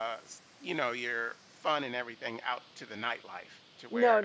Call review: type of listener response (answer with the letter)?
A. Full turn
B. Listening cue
A